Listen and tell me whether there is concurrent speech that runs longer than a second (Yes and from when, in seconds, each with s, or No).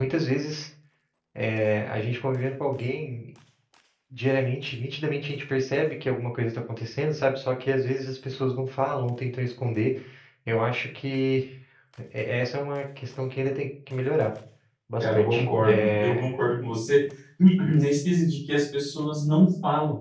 Yes, from 15.0 s